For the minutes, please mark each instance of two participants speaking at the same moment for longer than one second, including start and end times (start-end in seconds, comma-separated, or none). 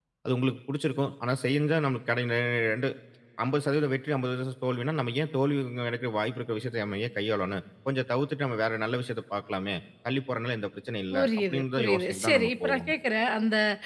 11.1-12.9